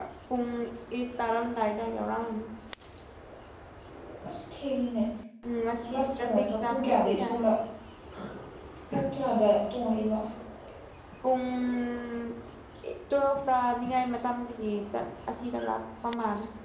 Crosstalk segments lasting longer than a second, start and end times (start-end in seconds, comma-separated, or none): 5.9-7.3